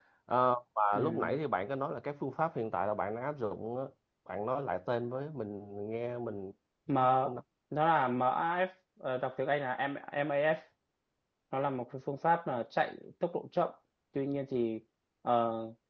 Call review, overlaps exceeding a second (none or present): none